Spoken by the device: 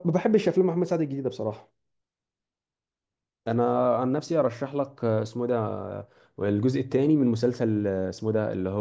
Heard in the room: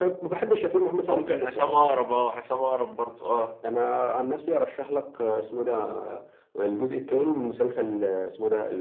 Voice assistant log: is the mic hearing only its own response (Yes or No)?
No